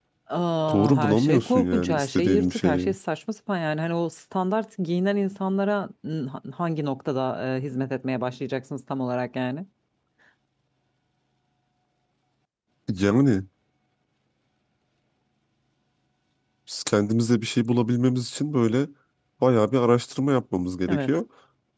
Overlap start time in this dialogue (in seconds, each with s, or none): 0.7 s